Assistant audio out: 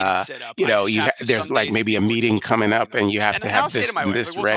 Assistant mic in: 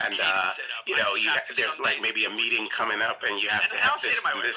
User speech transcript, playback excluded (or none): none